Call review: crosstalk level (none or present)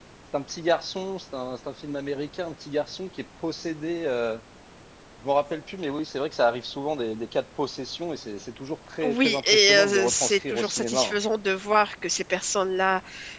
present